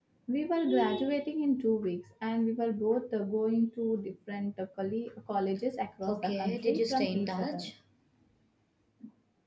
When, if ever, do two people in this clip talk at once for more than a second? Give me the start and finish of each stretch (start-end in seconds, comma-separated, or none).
6.1-7.7